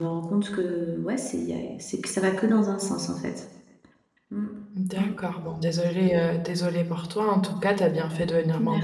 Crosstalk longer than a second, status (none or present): none